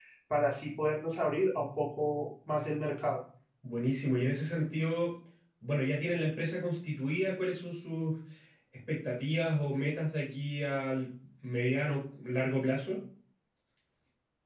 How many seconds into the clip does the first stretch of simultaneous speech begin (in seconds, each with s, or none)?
none